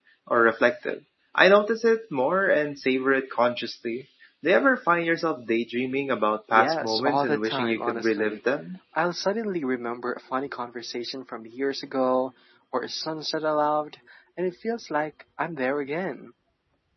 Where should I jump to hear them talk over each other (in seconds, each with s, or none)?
6.5 s